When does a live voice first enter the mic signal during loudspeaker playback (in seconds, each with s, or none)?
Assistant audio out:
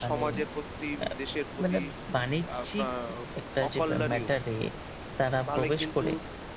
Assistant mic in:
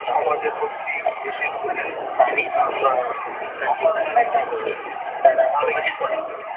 none